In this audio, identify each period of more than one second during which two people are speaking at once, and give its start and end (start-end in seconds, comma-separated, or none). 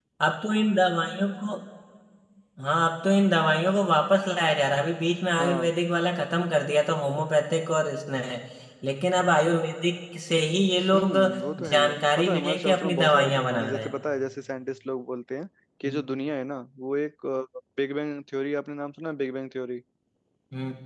11.7-13.9